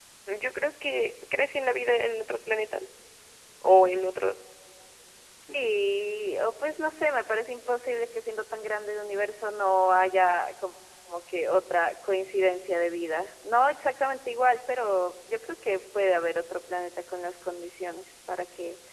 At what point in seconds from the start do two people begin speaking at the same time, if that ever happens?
none

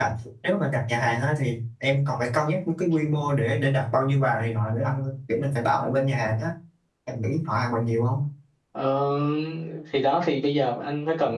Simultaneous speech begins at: none

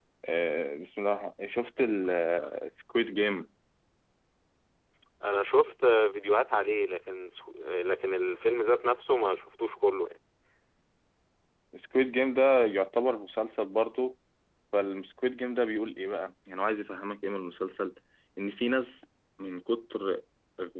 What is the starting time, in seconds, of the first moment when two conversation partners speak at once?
none

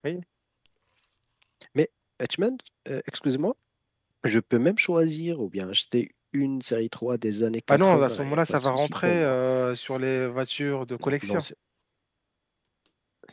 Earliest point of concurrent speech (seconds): 7.7 s

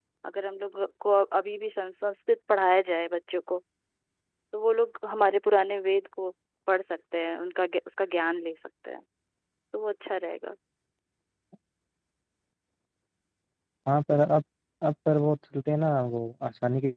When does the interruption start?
none

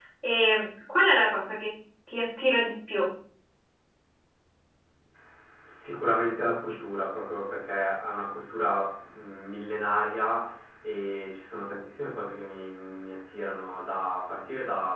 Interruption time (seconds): none

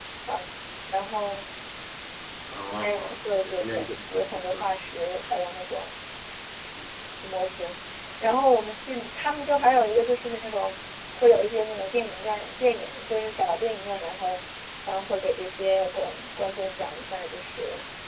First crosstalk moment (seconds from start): 2.7 s

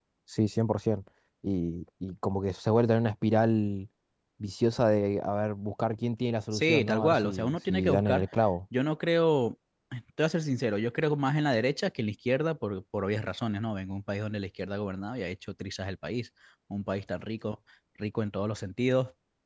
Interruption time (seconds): 6.5 s

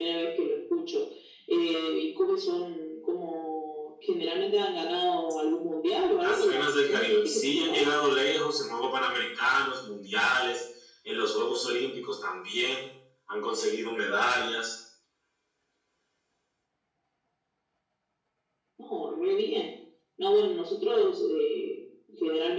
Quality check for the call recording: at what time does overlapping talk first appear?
6.2 s

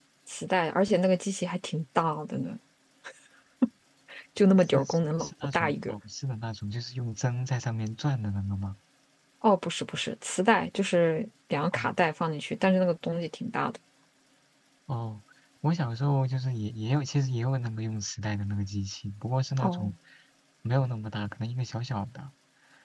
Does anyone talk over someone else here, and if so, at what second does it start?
4.7 s

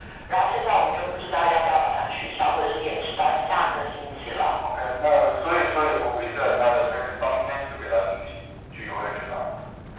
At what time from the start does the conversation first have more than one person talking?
none

